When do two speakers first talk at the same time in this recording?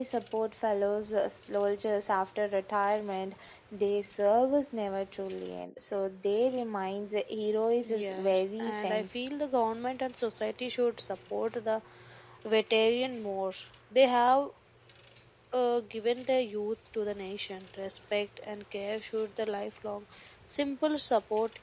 7.8 s

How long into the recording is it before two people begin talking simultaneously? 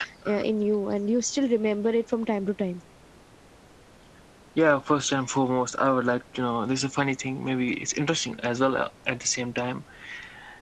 none

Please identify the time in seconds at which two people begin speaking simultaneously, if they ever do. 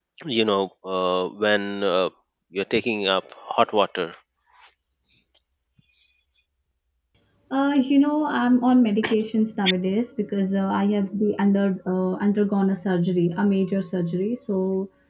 none

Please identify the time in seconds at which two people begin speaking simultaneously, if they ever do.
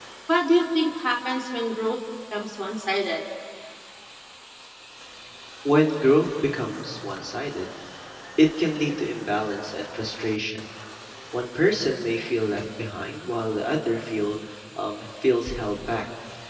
none

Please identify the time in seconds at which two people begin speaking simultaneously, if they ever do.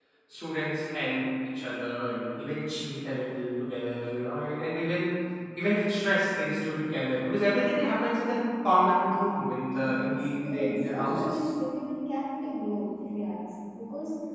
9.8 s

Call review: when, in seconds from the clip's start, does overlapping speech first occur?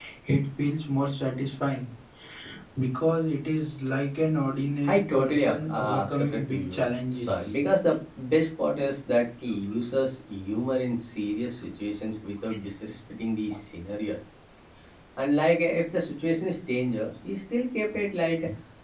4.8 s

